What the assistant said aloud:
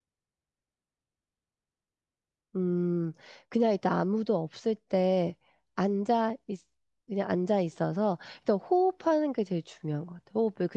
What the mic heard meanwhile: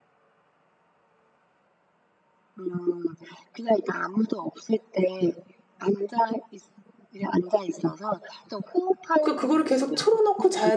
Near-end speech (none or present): present